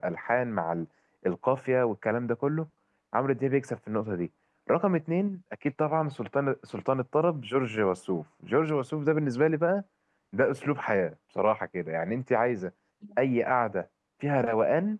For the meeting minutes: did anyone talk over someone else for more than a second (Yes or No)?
No